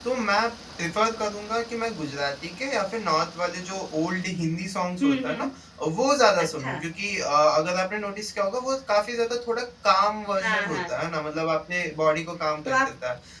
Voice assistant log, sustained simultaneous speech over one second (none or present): none